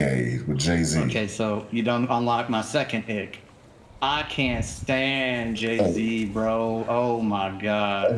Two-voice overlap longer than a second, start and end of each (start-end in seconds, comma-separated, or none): none